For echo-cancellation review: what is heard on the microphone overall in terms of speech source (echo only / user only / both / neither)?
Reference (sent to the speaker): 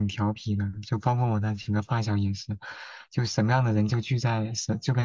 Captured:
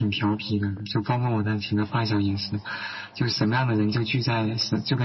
echo only